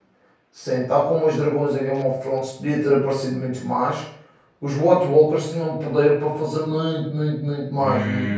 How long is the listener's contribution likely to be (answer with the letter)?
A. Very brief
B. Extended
B